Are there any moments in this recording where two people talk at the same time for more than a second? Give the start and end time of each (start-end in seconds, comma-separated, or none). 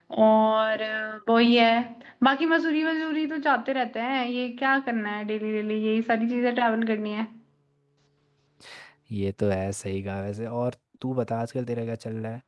none